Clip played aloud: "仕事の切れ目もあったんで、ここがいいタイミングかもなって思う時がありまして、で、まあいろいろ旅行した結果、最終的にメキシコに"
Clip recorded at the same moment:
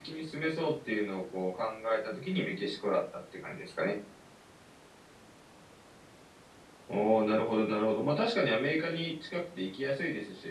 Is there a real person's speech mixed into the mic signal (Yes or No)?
Yes